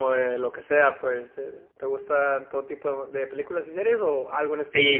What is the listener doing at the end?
taking over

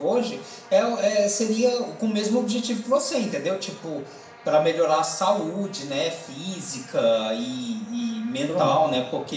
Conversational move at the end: listening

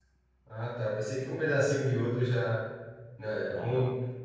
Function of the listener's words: listening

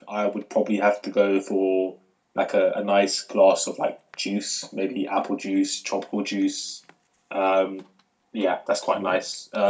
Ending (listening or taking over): listening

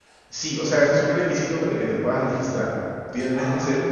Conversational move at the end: listening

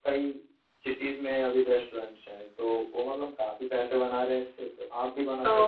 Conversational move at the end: taking over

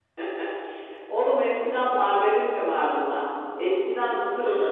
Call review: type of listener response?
listening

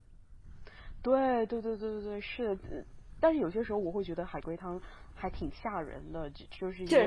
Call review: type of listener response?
listening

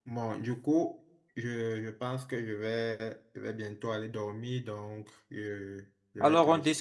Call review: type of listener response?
taking over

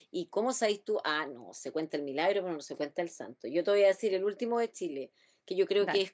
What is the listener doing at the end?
listening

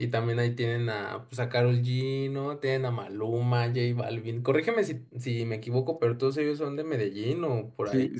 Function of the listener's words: taking over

